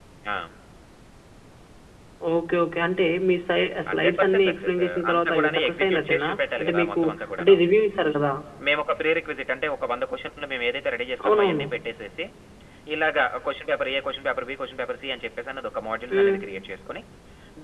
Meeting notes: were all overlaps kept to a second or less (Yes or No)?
No